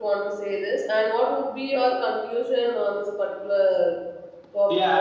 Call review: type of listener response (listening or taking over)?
taking over